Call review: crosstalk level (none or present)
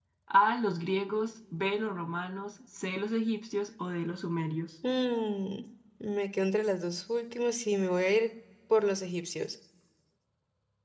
none